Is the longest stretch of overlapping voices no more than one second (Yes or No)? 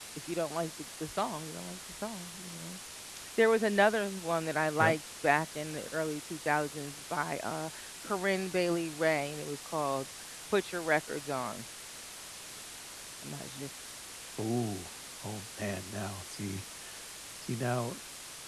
Yes